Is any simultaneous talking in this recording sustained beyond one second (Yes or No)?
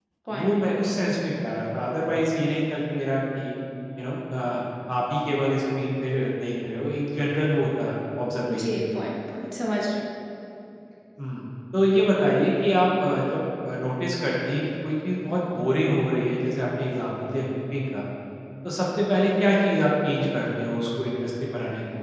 No